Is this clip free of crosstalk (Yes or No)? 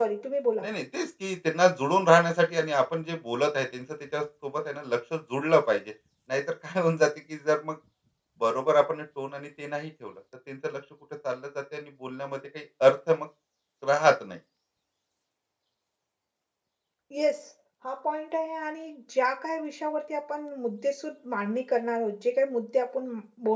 Yes